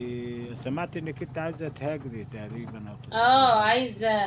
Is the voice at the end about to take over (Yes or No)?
Yes